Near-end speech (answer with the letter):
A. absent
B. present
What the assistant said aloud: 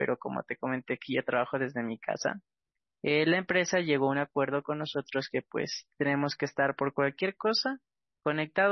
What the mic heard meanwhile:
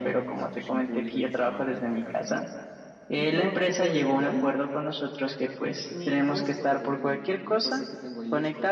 B